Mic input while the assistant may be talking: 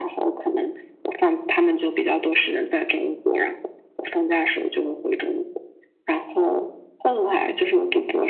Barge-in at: none

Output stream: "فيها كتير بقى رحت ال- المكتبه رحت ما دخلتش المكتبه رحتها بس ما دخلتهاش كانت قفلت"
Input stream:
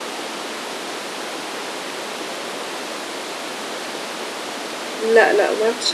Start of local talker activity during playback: 5.0 s

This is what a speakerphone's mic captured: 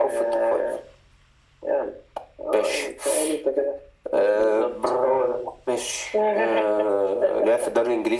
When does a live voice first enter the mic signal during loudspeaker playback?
none

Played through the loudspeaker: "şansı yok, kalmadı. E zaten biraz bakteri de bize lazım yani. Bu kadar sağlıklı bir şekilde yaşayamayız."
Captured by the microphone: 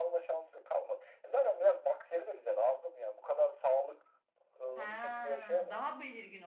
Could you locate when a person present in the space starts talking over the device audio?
4.8 s

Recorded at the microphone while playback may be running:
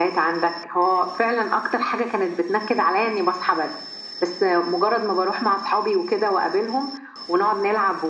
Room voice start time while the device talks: none

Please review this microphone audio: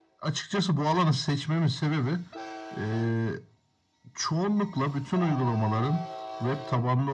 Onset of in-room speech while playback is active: none

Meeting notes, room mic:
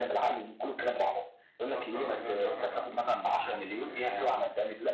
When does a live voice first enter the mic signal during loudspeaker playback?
1.6 s

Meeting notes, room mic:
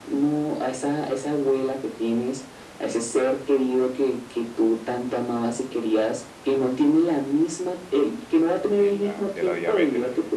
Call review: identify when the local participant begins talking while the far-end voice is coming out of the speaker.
8.7 s

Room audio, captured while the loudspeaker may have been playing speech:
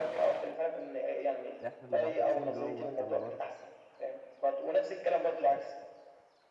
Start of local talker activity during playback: 1.7 s

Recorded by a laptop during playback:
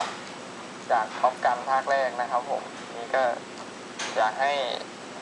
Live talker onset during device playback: none

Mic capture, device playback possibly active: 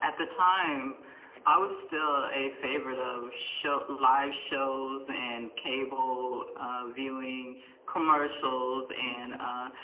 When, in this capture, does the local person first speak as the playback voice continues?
none

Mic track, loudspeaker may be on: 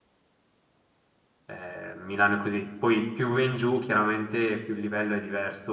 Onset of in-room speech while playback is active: 1.4 s

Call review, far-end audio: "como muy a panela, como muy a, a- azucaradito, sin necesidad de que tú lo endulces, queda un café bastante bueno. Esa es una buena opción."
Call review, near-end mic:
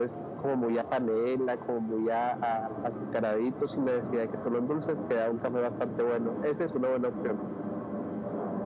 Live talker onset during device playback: none

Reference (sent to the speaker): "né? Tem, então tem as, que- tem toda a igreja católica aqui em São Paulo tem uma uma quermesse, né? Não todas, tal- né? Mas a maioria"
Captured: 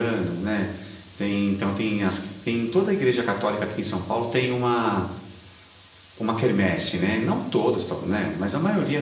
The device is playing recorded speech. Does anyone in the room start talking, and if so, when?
none

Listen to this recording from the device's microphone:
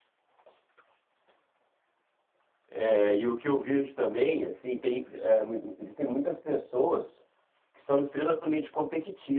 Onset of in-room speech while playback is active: 2.7 s

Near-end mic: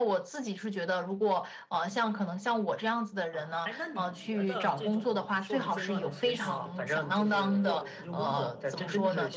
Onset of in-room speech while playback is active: 3.3 s

